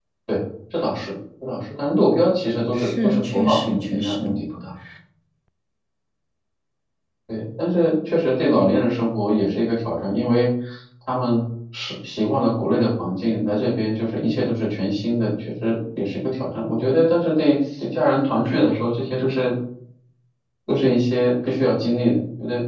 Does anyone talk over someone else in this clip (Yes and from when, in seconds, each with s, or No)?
Yes, from 2.8 s